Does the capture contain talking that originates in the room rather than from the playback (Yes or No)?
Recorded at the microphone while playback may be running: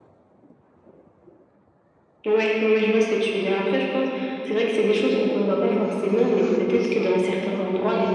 Yes